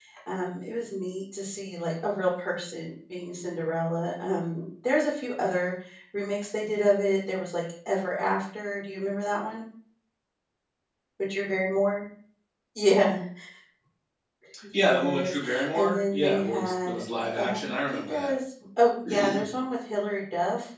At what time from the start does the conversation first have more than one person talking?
15 s

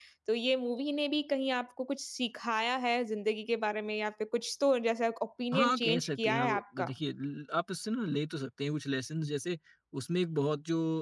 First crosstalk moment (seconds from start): 6 s

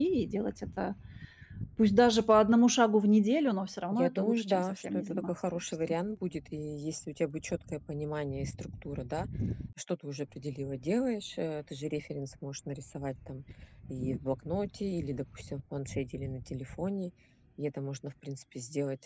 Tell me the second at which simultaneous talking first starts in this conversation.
4 s

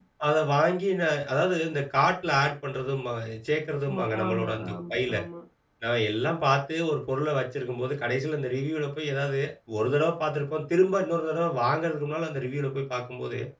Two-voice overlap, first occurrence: 4 s

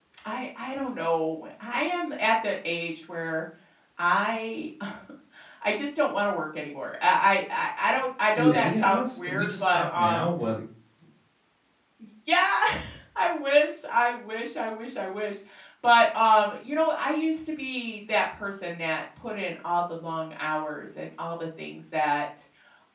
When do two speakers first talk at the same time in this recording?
8 s

